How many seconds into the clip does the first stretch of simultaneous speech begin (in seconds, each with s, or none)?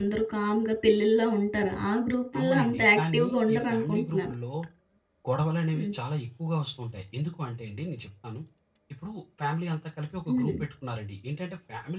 2.4 s